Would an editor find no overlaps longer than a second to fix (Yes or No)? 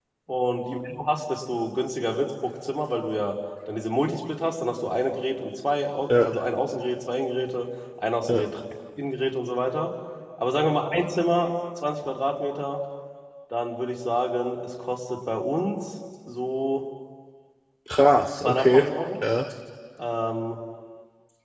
Yes